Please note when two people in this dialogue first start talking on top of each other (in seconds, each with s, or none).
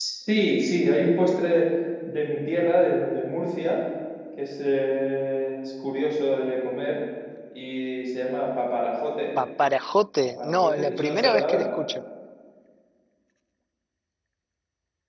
10.4 s